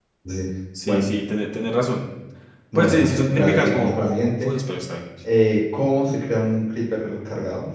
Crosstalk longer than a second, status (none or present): present